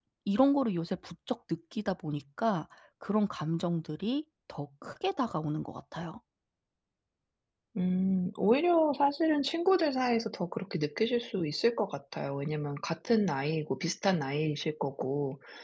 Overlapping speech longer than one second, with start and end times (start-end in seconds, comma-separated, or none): none